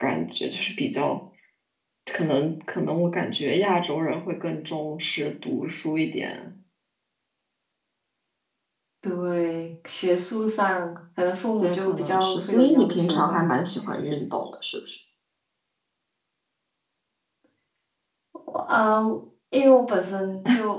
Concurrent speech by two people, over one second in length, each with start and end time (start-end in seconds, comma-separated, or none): 11.6-13.4